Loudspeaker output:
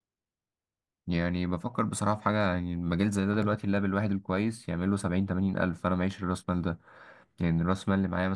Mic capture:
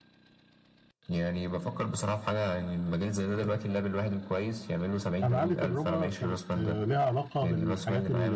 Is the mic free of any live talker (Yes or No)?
No